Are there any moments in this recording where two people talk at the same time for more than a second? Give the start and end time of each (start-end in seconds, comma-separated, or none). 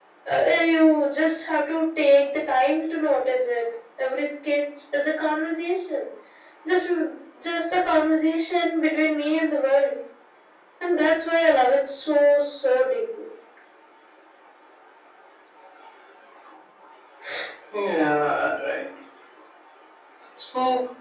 none